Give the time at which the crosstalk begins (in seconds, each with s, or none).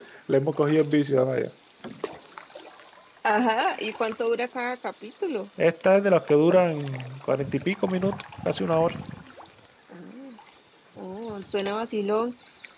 none